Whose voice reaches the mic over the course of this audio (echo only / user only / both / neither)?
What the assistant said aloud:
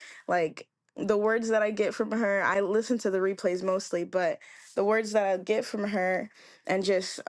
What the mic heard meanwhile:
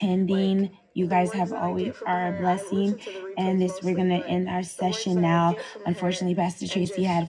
both